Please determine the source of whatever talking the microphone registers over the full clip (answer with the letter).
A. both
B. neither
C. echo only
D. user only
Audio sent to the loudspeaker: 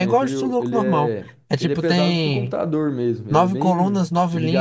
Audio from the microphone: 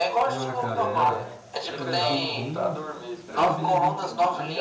A